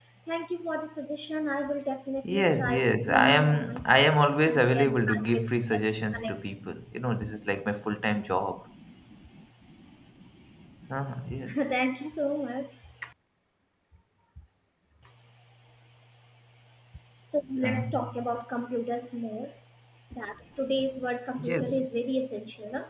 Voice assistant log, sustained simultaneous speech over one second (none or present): present